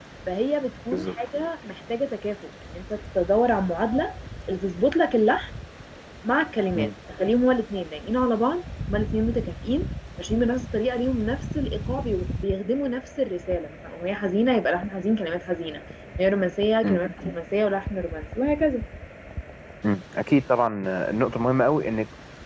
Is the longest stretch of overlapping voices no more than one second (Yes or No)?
Yes